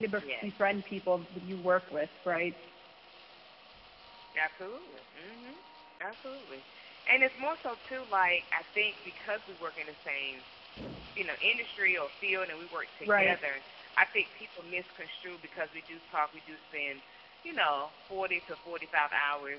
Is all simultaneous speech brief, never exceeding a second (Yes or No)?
Yes